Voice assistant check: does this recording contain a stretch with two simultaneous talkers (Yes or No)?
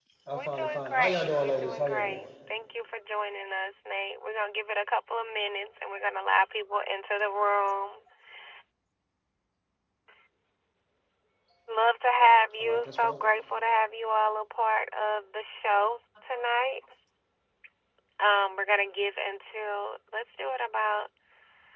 Yes